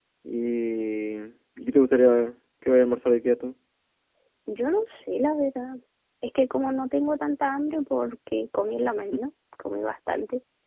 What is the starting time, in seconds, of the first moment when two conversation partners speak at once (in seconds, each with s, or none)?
none